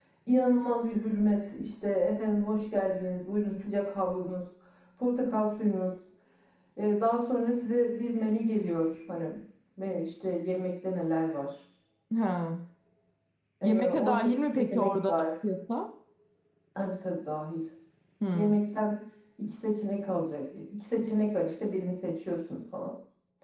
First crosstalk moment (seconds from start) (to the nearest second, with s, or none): 14 s